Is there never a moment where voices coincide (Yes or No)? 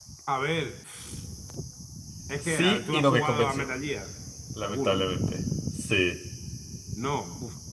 No